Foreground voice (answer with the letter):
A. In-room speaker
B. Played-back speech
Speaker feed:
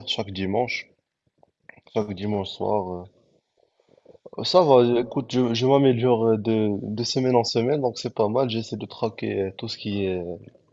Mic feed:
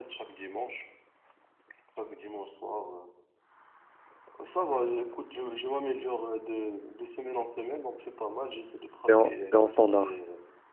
A